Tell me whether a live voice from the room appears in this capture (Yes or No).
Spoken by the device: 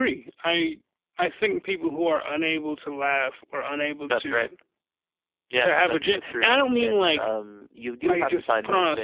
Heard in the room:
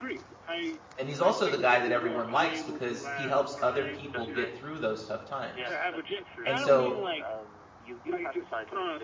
Yes